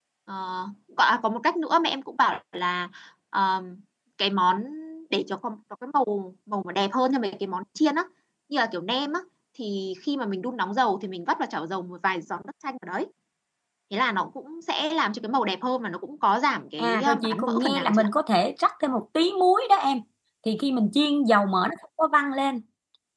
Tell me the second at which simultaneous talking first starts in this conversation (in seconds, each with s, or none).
16.8 s